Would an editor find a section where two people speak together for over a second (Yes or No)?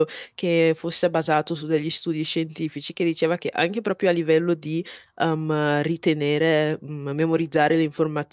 No